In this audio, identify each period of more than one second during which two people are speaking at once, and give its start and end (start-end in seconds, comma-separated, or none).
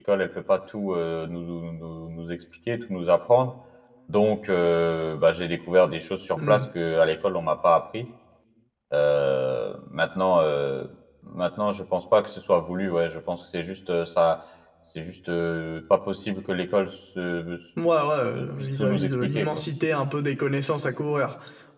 18.3-19.6